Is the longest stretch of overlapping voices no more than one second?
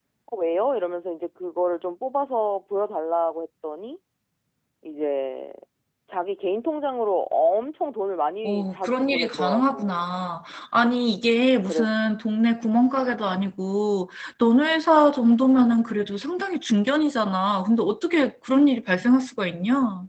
No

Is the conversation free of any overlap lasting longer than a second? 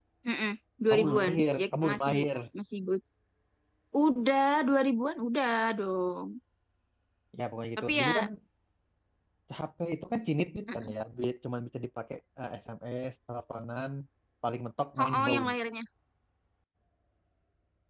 No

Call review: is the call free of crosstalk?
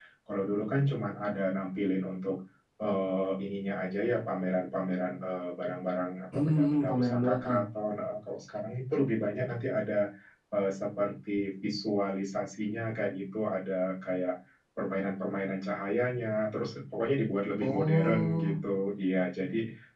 No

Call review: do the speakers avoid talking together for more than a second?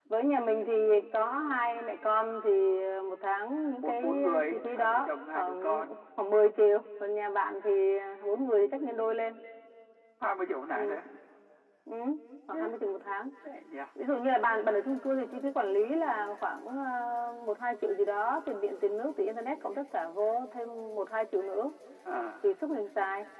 No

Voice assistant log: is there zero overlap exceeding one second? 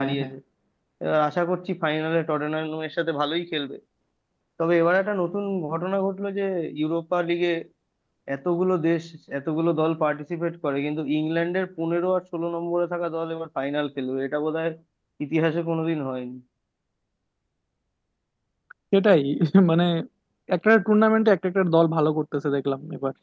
Yes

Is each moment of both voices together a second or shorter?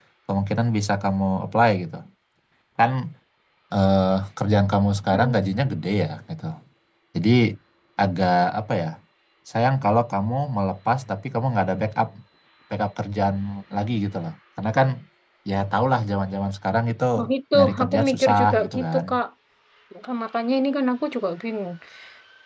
No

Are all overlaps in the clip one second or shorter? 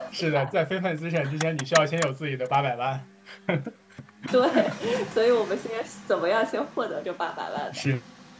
Yes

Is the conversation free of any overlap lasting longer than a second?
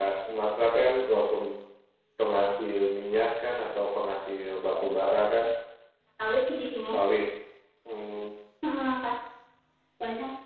Yes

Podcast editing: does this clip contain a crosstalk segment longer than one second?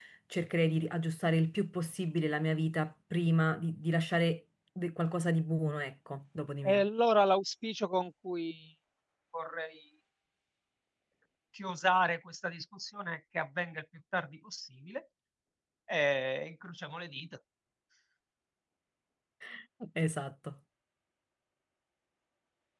No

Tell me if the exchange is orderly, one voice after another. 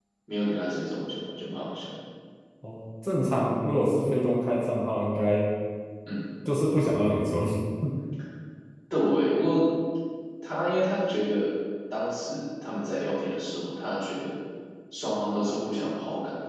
Yes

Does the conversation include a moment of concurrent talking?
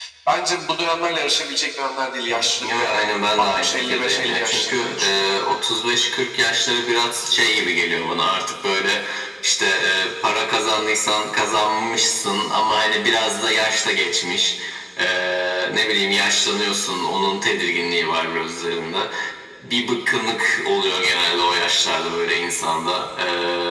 Yes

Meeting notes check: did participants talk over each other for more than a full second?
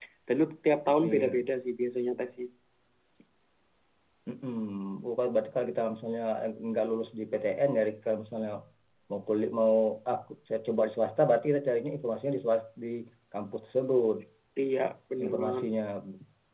No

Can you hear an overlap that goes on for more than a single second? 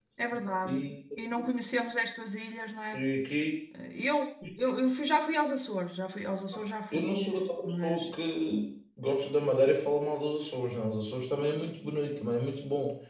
No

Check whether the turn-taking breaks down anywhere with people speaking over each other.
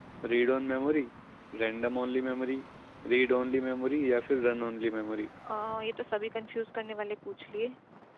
No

